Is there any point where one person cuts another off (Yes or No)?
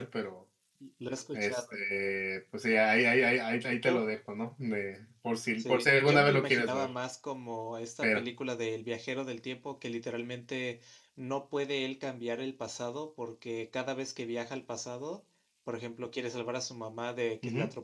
Yes